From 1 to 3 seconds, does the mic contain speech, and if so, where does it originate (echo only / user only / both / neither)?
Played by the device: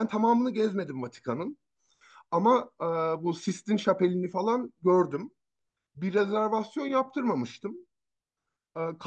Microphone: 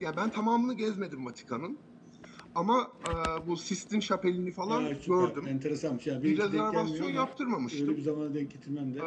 echo only